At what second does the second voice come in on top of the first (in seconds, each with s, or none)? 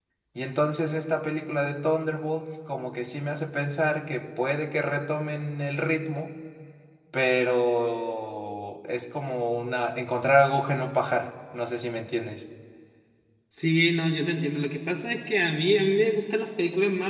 none